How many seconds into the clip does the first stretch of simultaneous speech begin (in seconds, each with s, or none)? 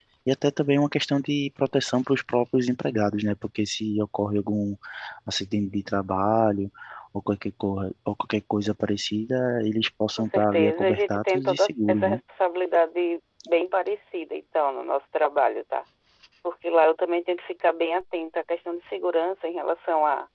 10.2 s